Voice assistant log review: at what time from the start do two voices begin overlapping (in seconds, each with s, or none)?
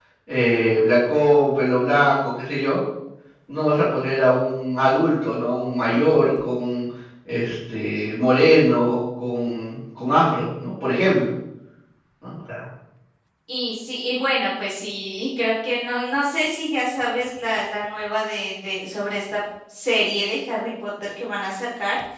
none